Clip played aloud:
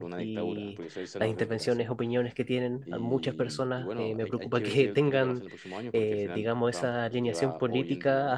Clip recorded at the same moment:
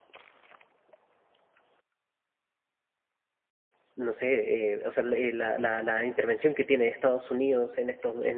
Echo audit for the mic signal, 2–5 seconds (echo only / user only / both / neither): user only